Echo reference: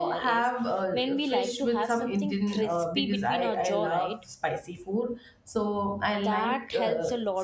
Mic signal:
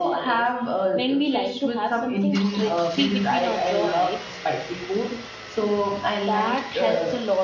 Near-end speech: none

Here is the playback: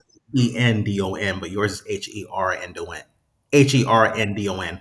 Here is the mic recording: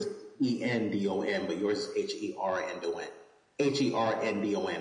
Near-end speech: none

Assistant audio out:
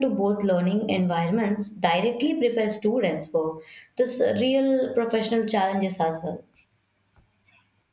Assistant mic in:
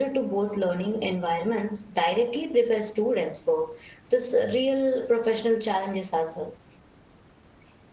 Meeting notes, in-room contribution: none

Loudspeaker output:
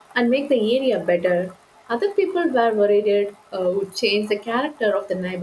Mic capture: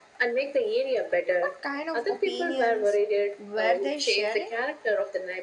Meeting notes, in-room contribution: present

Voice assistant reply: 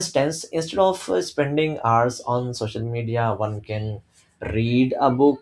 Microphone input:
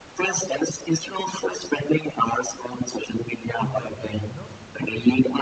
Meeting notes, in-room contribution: present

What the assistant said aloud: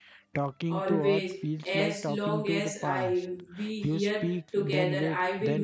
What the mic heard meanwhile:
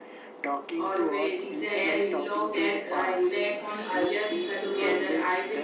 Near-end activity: present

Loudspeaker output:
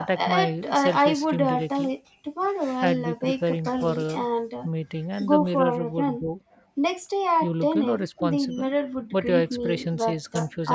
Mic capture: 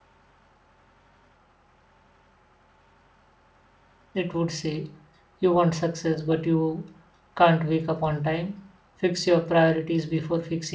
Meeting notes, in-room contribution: present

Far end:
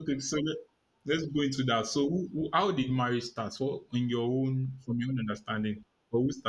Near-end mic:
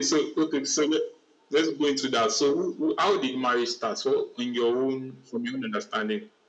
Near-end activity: none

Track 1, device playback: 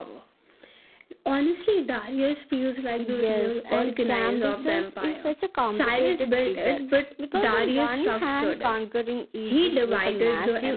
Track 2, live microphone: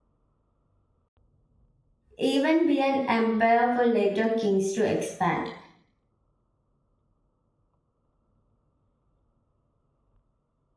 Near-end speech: present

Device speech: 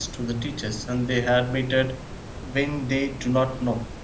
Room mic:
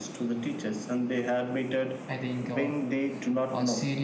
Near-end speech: present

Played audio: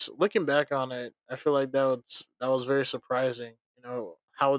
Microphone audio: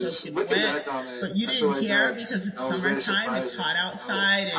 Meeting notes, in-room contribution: present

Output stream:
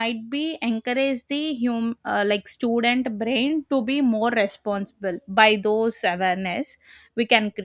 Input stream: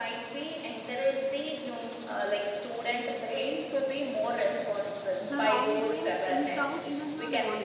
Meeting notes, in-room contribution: present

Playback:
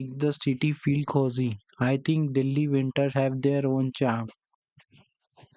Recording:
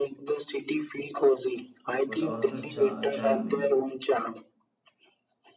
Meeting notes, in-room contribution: present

